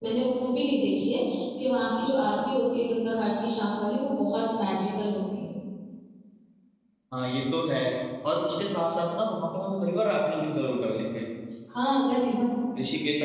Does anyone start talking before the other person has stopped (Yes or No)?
No